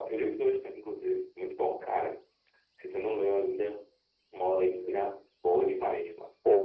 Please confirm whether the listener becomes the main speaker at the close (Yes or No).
Yes